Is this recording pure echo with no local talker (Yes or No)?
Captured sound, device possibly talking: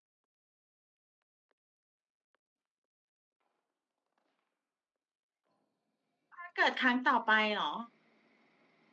No